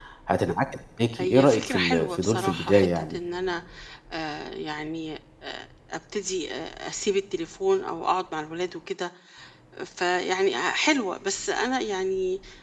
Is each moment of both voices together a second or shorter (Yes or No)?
No